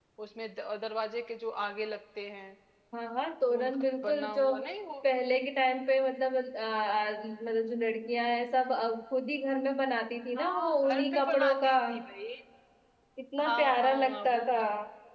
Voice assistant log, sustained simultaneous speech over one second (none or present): present